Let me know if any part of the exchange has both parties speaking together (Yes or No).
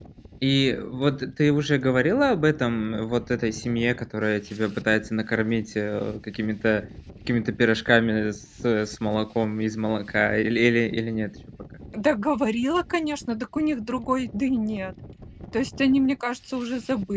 No